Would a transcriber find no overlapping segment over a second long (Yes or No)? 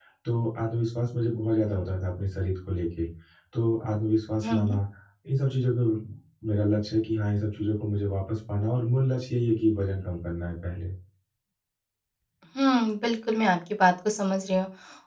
Yes